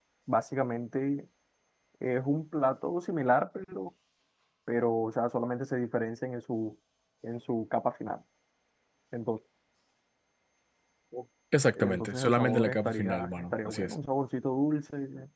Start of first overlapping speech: 12 s

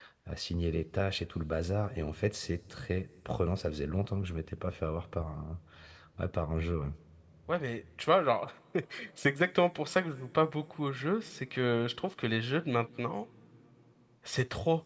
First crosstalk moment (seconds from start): none

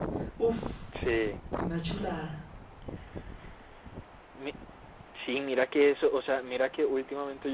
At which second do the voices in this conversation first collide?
none

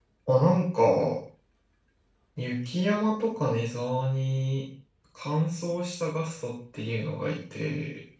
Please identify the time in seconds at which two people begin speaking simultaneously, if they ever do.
none

